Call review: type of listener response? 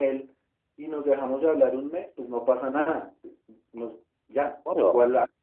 listening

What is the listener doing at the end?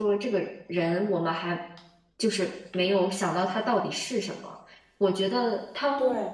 listening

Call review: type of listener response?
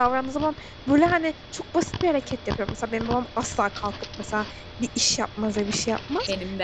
listening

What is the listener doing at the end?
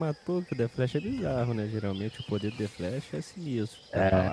listening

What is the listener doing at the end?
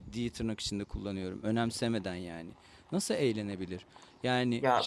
taking over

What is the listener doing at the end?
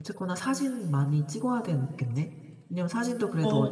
listening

